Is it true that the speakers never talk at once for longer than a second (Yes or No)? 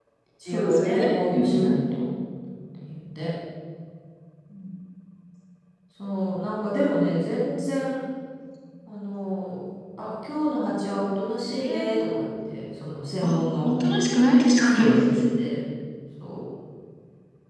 No